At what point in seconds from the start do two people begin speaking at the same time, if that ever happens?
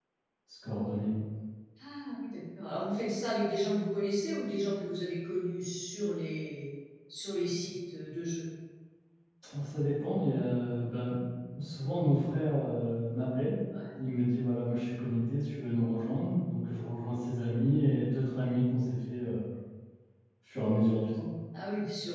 none

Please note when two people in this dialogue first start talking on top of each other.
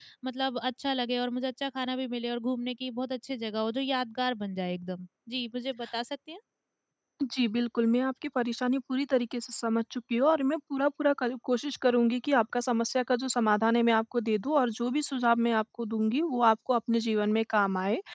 none

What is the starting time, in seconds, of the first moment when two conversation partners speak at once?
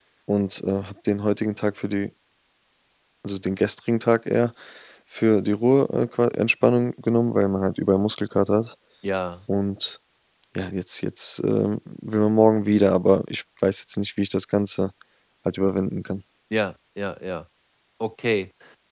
none

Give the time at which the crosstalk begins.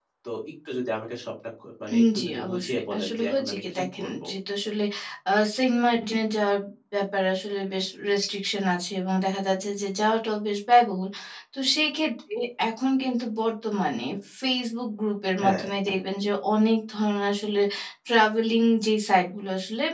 1.9 s

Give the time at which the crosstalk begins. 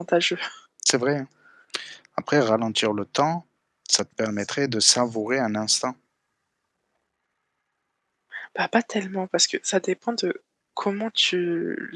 none

